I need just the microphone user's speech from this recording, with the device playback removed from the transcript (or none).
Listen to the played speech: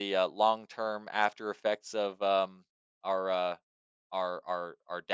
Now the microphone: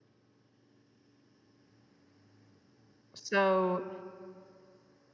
so